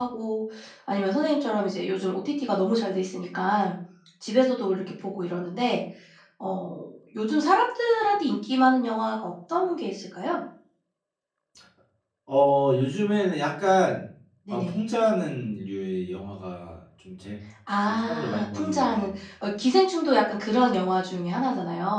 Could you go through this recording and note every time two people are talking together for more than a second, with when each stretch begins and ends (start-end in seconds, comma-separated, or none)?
17.9-19.1